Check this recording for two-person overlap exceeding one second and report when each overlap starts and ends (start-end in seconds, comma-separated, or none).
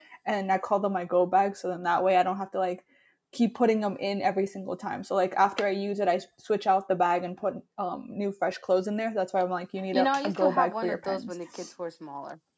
9.9-11.3